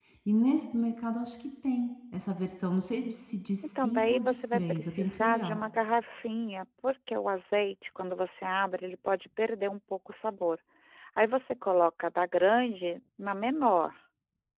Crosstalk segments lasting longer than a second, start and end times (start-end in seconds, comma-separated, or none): 3.8-5.6